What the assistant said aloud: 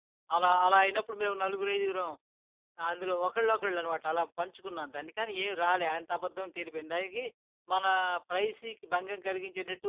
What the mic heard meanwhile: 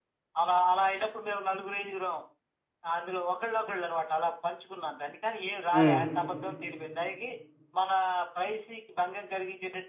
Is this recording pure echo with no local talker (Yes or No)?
No